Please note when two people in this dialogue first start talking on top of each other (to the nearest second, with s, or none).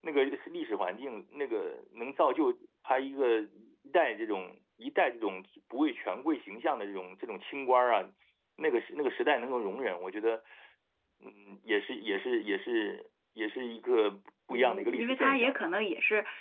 15 s